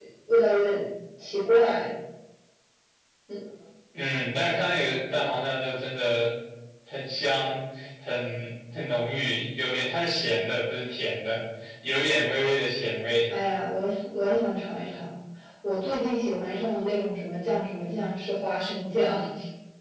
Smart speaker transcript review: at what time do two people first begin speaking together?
none

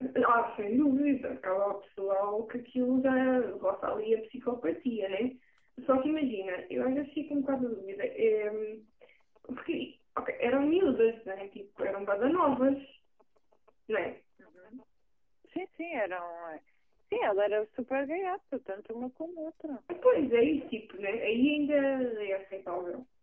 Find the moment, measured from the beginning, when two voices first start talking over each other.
none

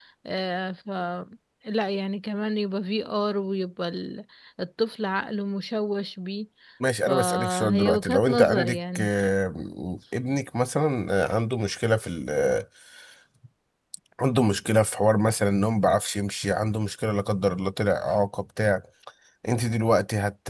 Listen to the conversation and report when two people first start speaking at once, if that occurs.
7.1 s

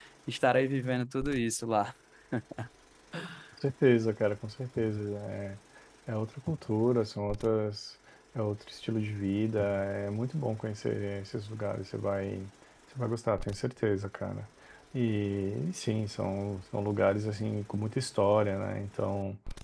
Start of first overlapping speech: none

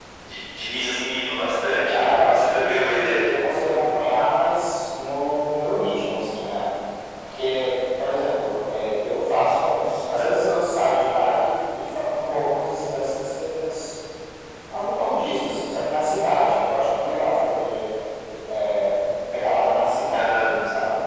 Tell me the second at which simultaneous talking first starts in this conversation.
1.9 s

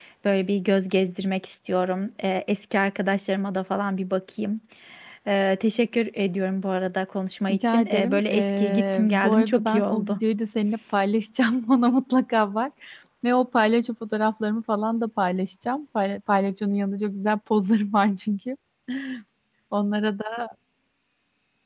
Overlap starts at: 7.5 s

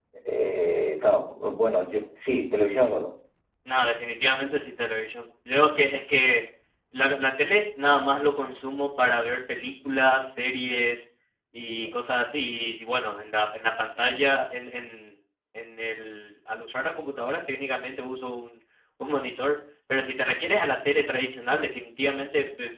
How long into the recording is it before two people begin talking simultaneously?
none

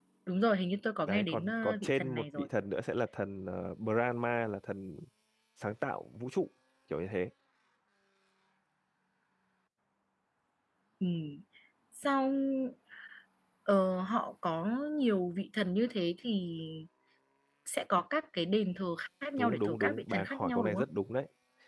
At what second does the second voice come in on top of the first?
1.1 s

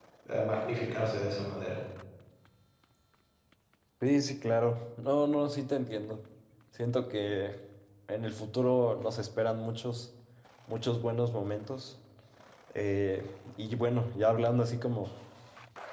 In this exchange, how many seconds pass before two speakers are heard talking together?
none

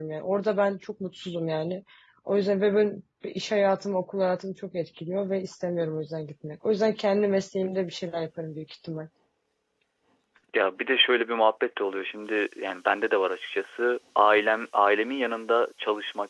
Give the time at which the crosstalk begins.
none

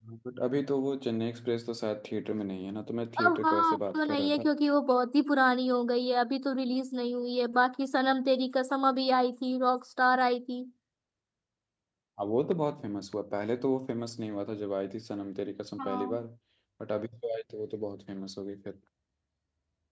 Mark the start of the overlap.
3.2 s

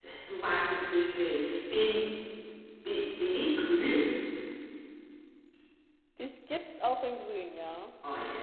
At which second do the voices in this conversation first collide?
none

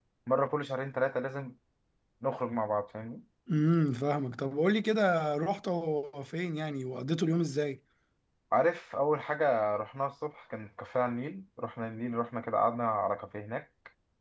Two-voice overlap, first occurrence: none

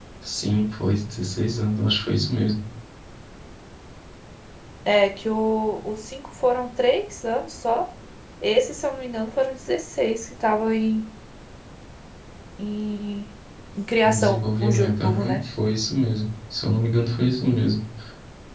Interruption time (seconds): 14.0 s

